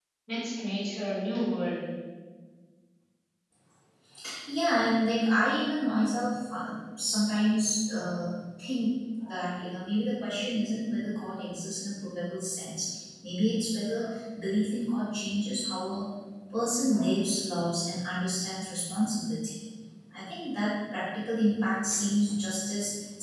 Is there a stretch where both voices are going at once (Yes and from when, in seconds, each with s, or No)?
No